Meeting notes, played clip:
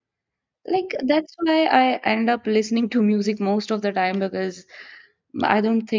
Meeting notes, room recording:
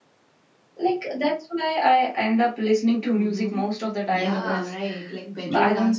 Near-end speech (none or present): present